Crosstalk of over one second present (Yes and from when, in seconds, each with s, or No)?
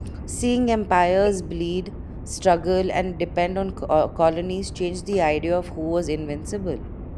No